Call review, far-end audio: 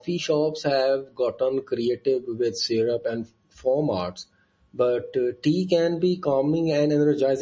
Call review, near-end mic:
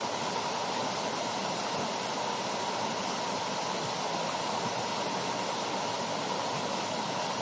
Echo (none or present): none